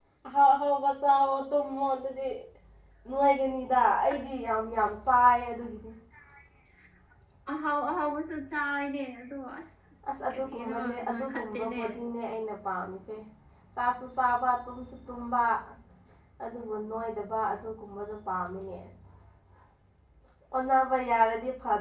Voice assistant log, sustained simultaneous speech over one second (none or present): present